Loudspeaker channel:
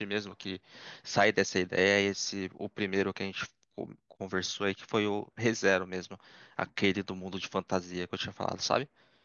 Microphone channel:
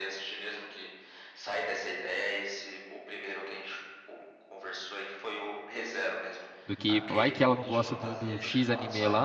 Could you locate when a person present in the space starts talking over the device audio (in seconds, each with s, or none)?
6.6 s